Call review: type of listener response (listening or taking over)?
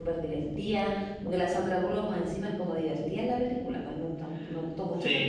taking over